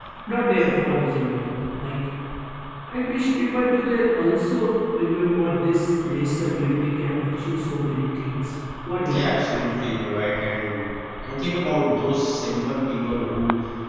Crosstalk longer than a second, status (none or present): none